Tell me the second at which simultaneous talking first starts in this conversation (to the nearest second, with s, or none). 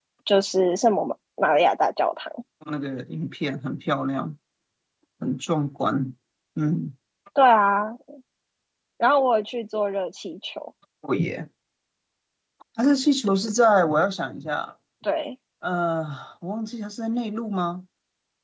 none